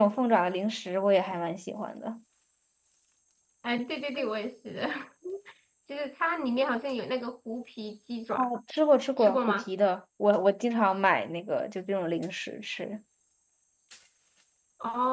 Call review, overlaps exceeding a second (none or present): none